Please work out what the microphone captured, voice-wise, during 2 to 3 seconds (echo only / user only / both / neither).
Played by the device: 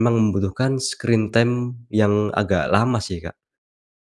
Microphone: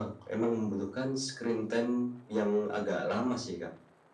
echo only